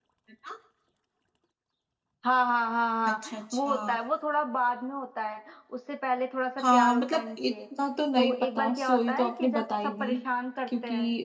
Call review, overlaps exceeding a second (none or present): present